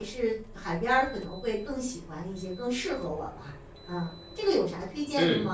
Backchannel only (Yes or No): No